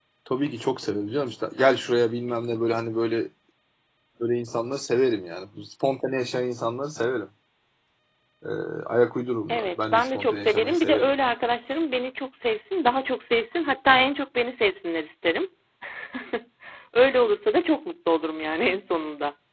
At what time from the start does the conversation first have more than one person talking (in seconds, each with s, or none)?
9.5 s